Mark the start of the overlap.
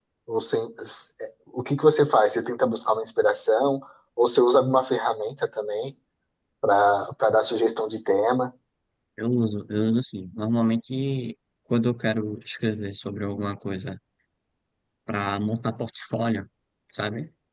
none

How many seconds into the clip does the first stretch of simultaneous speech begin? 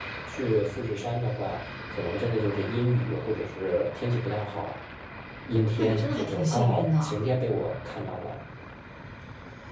6 s

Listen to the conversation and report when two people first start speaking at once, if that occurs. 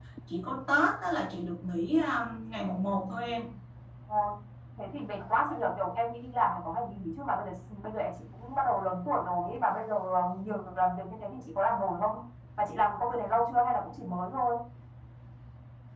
none

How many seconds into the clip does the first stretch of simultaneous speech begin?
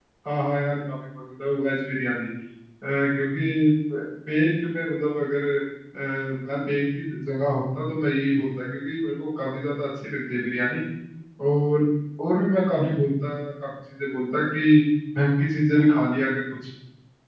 none

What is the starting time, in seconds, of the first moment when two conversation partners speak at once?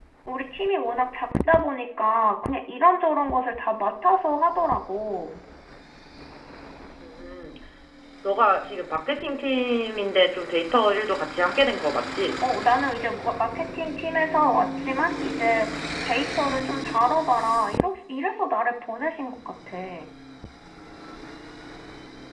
none

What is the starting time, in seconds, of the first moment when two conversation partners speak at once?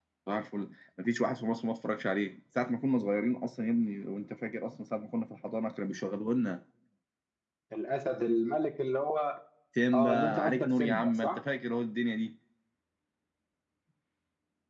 10 s

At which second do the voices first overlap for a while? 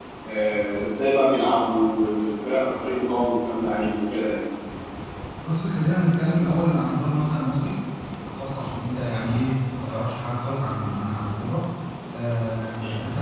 none

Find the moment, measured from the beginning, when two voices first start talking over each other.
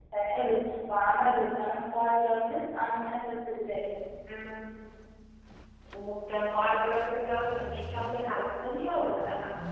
none

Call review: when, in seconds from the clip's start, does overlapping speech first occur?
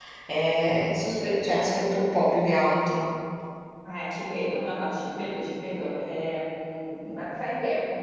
none

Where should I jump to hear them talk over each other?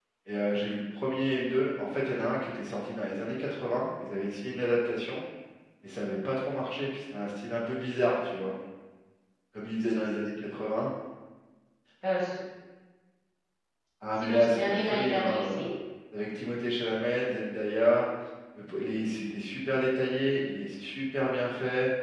14 s

